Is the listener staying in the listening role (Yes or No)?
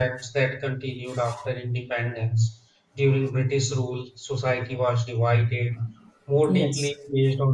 Yes